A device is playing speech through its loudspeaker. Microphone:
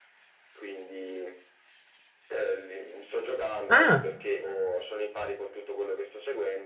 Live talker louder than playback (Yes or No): Yes